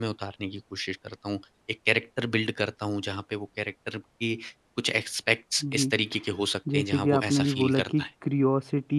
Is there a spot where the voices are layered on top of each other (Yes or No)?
Yes